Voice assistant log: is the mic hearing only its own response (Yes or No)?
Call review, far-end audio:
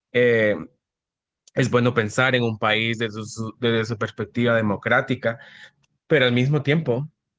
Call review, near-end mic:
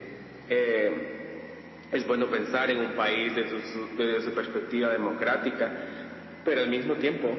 Yes